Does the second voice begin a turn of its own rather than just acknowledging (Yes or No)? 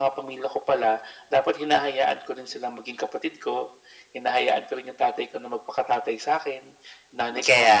No